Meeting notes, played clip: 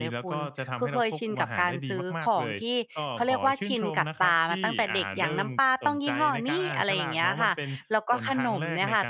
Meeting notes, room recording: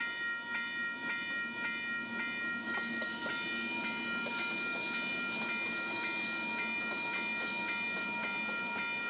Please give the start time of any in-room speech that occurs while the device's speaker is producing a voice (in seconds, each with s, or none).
none